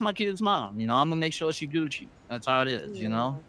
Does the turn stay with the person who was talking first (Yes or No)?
No